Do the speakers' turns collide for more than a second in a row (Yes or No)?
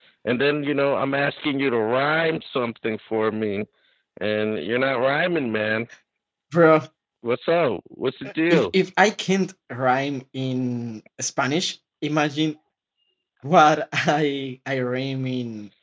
No